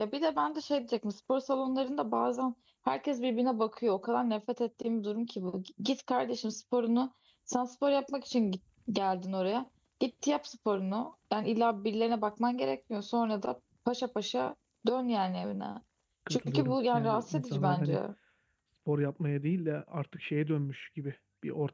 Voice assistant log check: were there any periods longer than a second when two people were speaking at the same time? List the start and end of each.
16.3-18.0

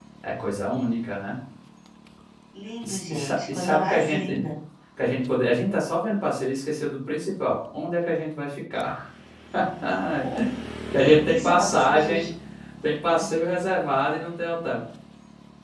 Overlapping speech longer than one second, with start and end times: 2.8-4.4, 11.0-12.2

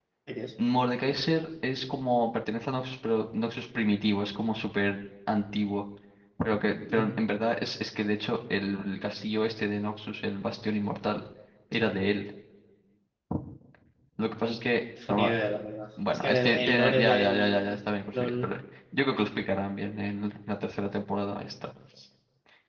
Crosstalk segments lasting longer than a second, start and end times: 16.1-17.7

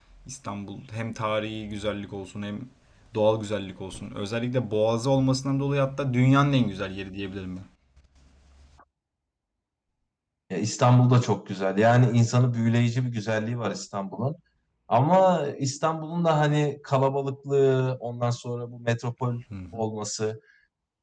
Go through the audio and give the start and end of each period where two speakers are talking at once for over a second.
none

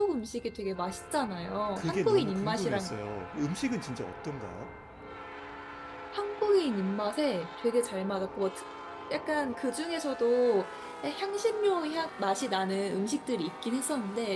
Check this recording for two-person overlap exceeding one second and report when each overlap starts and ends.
1.7-2.9

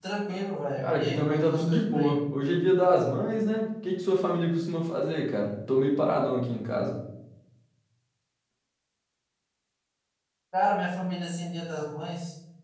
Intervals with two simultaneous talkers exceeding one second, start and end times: 0.8-2.2

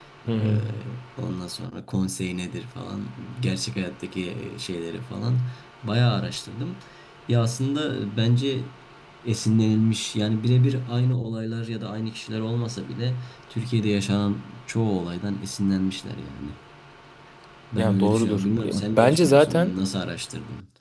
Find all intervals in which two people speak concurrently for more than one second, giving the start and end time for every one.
17.8-19.7

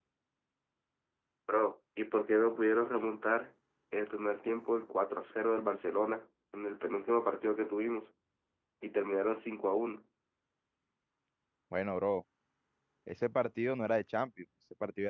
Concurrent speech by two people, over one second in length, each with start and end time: none

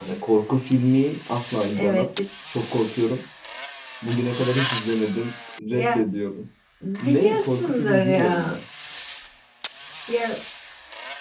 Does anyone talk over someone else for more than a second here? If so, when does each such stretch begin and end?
7.0-8.5

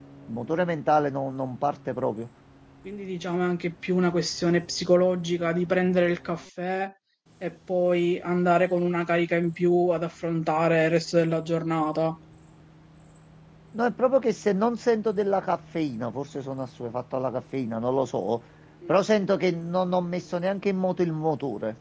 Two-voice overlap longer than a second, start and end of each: none

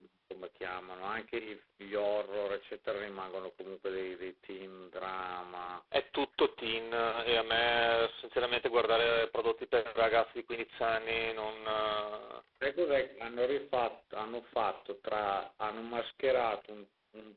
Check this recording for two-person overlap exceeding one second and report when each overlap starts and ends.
none

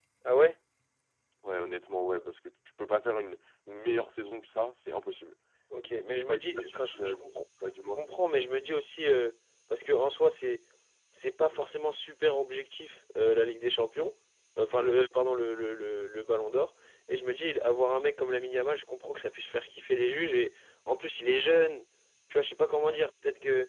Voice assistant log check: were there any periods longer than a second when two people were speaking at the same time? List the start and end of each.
5.9-7.2

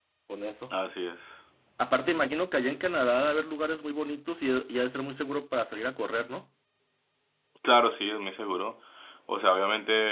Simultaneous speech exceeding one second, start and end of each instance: none

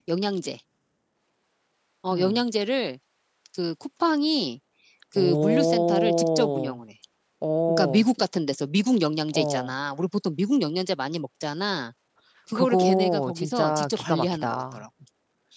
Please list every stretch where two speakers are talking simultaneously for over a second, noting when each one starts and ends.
5.2-6.8, 12.6-14.8

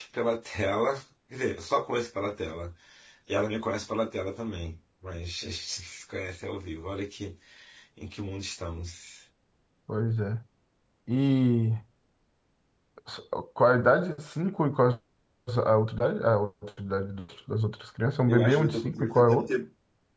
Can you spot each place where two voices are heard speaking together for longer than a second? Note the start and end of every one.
18.3-19.5

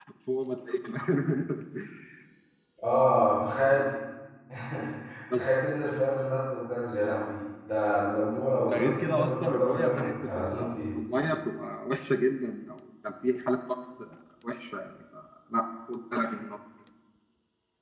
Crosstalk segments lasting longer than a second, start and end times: 8.6-10.8

